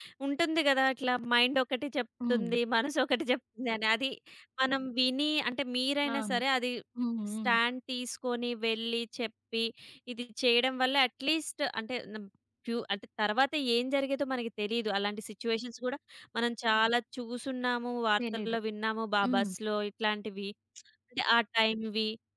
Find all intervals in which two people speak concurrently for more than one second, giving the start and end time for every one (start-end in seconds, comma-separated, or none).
none